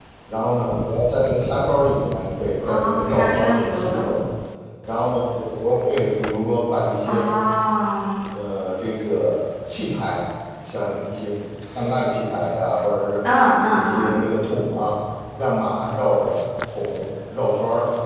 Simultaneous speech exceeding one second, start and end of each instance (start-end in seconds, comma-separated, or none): 2.6-4.1